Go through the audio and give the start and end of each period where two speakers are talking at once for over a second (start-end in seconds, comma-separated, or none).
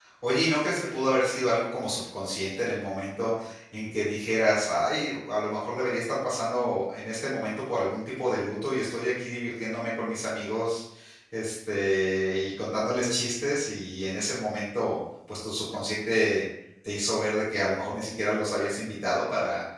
none